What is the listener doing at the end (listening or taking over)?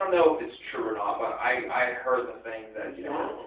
listening